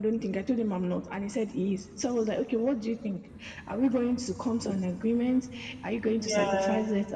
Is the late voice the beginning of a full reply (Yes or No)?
No